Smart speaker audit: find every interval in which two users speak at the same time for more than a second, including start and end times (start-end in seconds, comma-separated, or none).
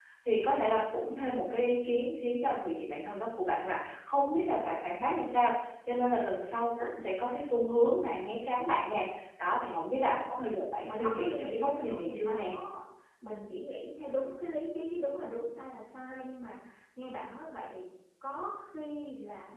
10.8-12.6